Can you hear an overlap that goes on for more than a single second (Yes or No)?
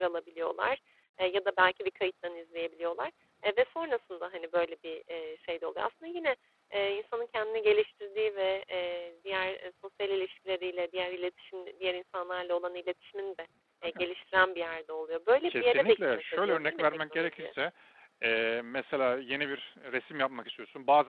Yes